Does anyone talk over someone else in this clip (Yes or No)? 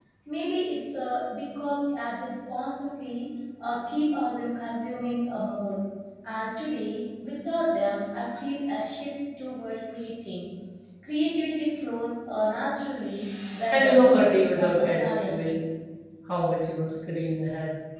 Yes